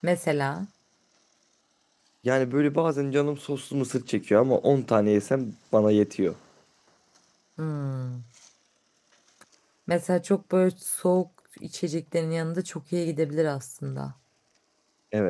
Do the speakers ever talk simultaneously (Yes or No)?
No